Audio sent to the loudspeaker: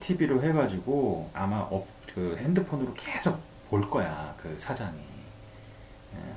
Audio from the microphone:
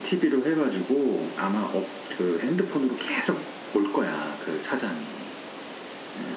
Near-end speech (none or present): none